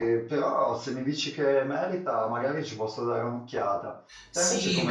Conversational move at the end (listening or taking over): taking over